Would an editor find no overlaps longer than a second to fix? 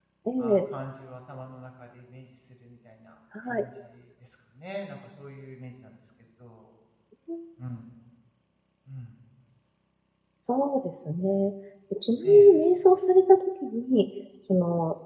Yes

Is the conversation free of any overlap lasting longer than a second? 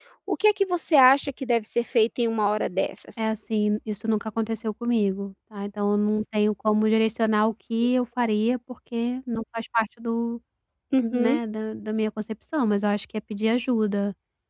Yes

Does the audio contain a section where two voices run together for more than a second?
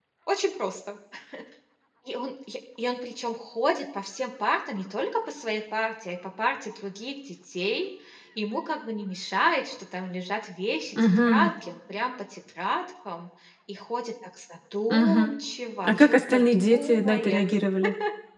Yes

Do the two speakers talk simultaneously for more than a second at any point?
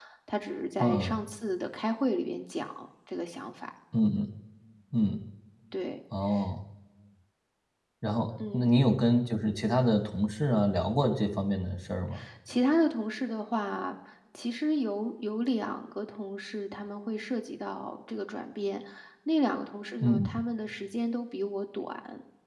No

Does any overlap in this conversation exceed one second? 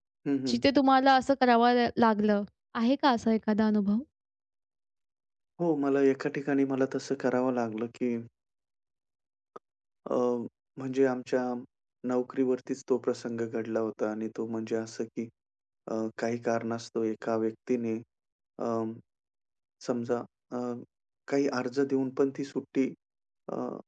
No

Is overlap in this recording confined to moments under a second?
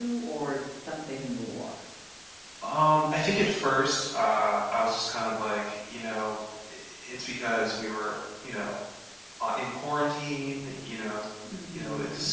Yes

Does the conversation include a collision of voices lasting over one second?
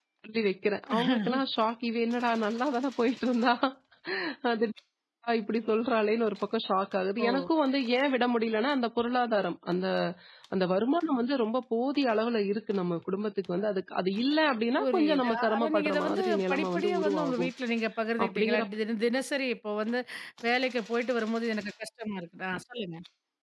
Yes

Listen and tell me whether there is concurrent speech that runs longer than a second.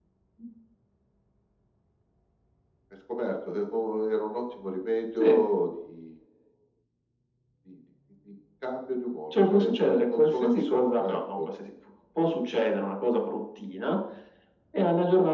Yes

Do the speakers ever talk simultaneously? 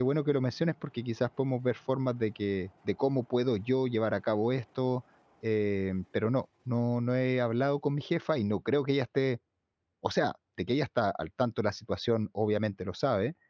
No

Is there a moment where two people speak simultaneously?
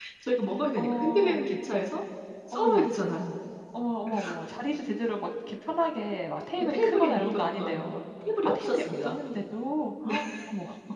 Yes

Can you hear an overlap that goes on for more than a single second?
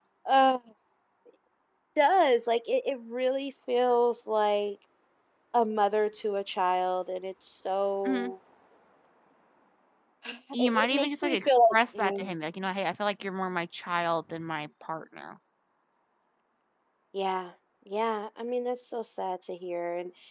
Yes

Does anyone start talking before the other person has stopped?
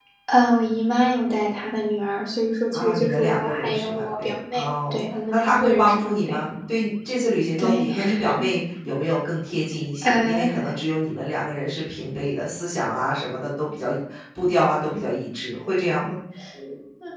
Yes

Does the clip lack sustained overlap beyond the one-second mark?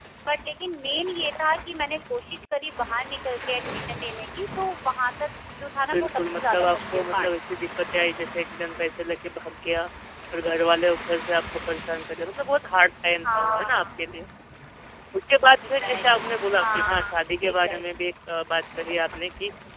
No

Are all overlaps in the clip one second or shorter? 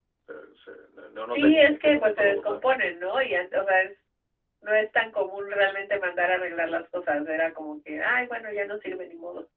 No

